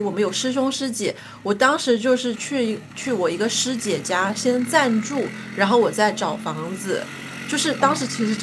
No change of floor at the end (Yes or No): Yes